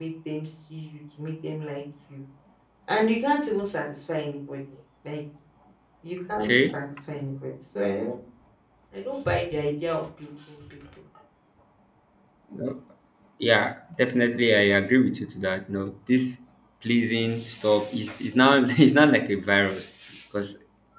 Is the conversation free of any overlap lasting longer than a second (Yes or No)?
Yes